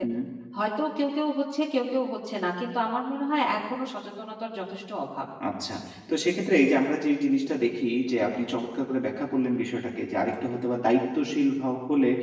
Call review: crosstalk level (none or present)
none